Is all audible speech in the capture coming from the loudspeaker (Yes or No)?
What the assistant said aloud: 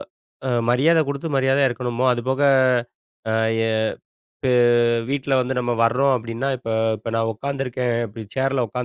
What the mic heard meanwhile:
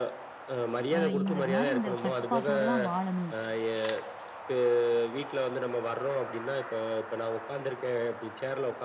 No